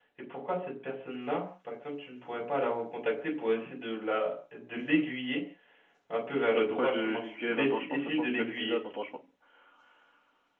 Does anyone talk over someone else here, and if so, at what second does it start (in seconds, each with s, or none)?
6.5 s